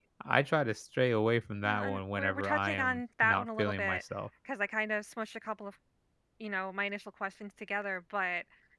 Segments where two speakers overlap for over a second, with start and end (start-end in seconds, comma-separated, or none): 1.6-4.0